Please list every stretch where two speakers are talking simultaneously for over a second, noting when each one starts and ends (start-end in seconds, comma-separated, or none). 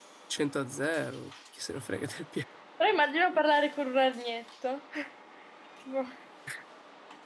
none